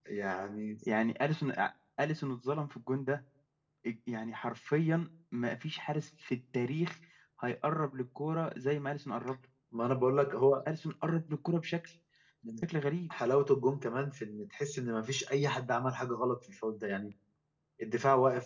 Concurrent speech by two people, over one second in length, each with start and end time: none

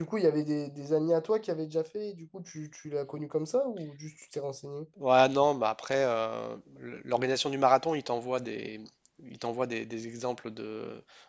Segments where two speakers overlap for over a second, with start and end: none

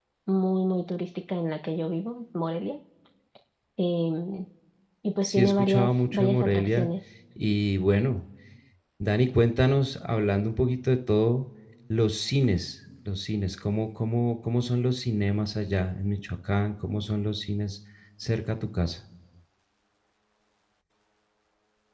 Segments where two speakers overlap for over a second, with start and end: 5.2-6.9

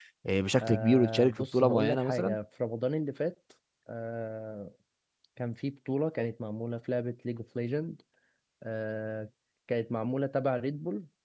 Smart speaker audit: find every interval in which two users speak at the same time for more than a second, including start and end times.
0.6-2.4

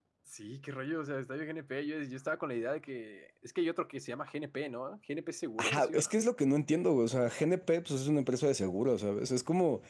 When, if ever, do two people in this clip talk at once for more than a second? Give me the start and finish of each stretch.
none

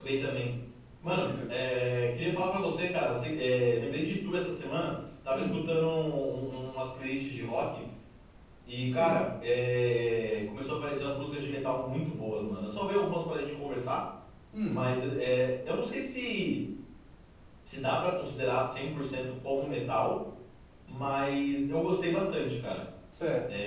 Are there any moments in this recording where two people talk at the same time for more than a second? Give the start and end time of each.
none

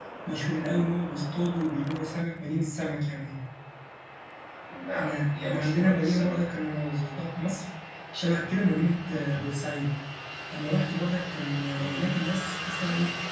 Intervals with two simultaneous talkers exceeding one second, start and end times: 4.9-6.4

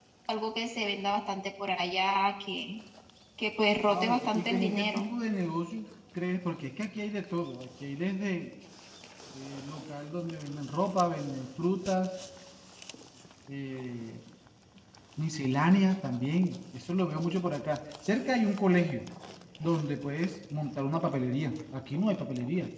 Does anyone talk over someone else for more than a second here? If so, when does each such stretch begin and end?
3.9-5.1

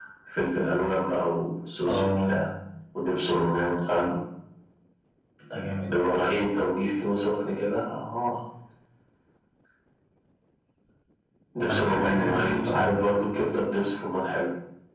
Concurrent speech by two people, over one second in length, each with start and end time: 11.7-13.0

